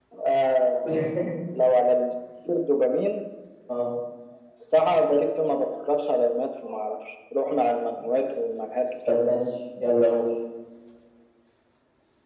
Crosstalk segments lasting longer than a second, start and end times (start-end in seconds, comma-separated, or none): none